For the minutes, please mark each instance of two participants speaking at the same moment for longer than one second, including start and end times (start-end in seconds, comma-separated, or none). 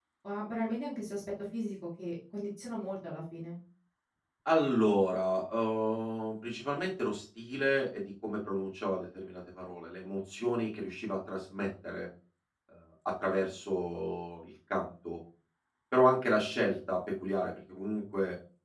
none